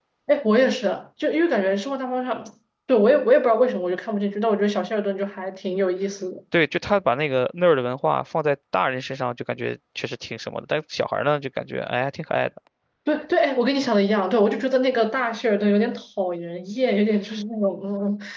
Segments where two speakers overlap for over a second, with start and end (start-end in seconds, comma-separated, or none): none